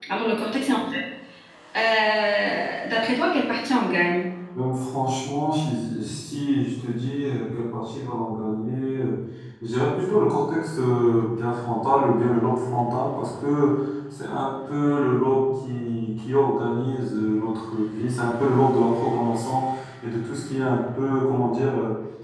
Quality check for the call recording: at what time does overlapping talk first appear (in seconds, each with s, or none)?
none